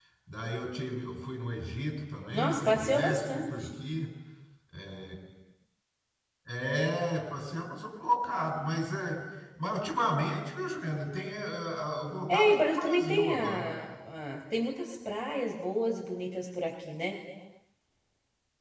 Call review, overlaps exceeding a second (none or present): present